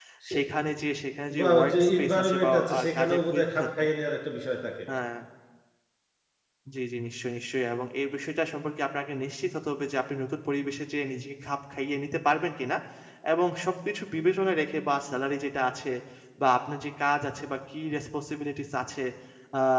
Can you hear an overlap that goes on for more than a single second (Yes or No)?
Yes